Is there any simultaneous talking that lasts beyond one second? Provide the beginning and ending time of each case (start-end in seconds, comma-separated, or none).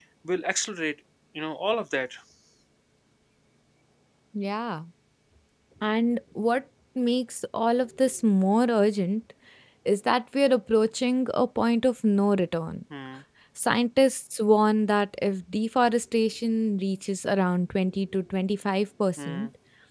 none